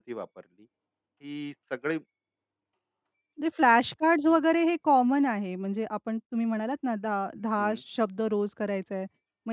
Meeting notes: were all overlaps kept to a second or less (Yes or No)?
Yes